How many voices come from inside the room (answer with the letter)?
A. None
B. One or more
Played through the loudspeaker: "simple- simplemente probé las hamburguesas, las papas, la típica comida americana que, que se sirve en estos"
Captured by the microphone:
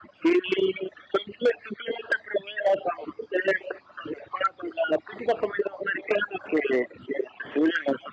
A